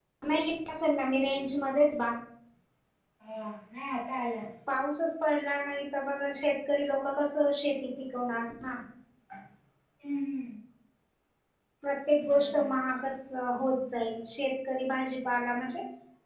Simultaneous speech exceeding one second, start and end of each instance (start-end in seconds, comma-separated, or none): none